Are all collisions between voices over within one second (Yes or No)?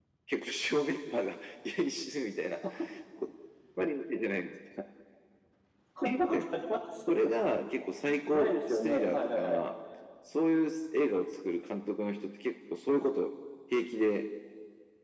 No